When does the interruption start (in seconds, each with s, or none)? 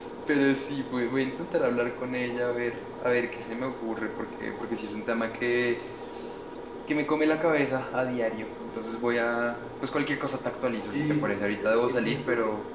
10.9 s